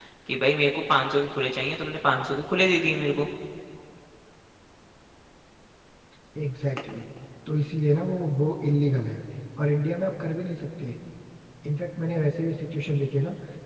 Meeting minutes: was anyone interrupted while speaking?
No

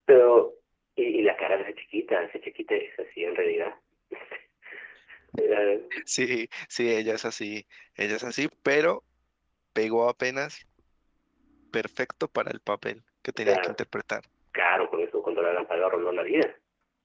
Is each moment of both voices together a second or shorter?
Yes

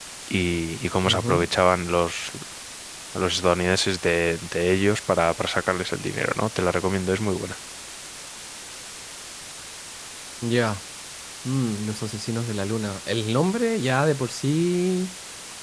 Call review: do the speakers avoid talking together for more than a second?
Yes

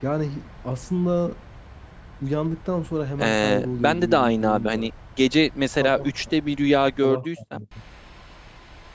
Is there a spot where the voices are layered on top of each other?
Yes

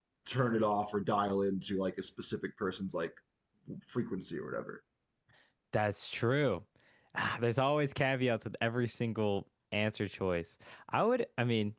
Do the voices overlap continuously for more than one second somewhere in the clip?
No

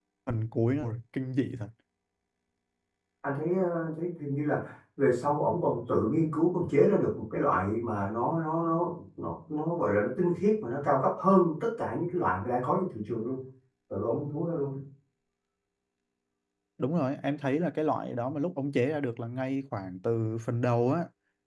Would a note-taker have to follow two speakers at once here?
No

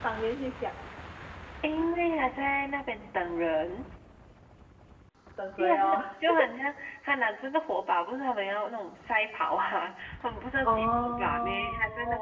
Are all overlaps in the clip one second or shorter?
No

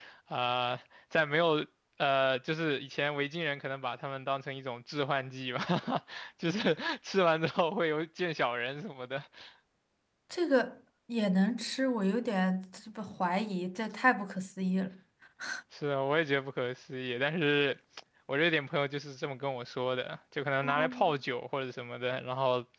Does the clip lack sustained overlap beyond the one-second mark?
Yes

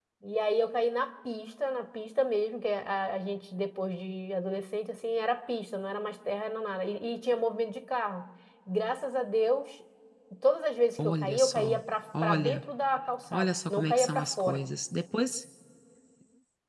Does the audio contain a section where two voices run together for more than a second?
Yes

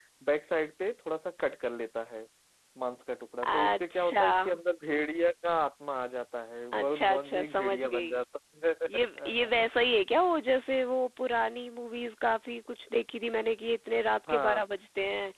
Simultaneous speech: Yes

